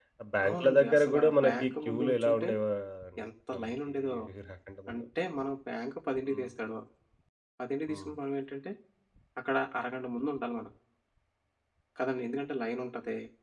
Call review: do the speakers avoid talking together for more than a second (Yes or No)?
No